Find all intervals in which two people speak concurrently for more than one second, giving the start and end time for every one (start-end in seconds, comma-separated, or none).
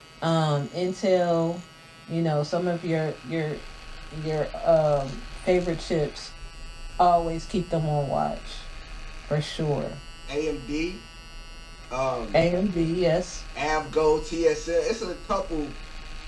none